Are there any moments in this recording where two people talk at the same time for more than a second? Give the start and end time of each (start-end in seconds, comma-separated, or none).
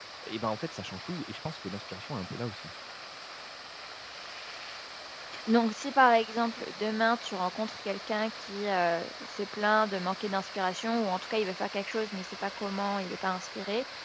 none